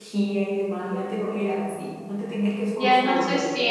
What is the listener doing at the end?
taking over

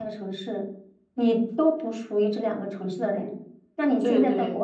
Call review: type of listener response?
listening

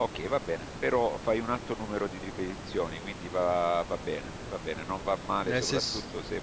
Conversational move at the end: listening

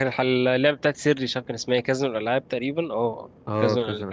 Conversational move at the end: taking over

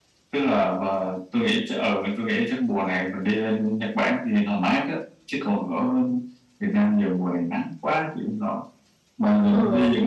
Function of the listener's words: listening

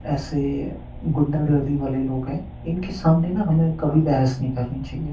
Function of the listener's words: listening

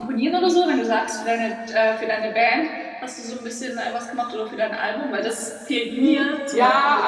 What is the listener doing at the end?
taking over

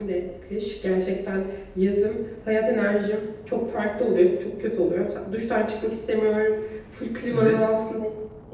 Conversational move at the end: listening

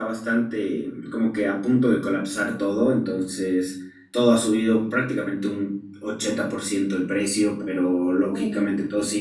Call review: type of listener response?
listening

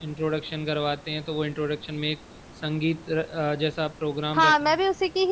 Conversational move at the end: taking over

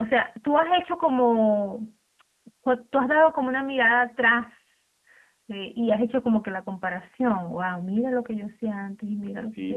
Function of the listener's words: taking over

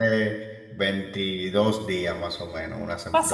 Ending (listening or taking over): taking over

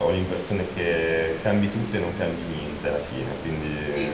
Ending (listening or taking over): taking over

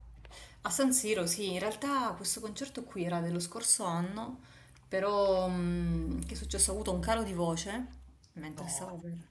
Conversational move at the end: listening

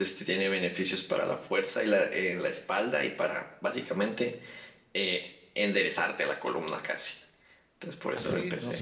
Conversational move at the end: taking over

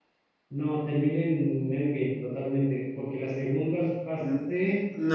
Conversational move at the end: taking over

